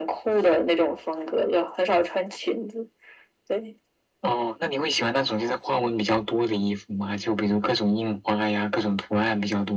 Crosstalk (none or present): none